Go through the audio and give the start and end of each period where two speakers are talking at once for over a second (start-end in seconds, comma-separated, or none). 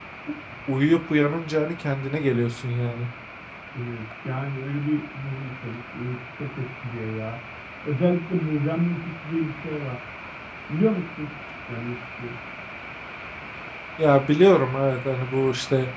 none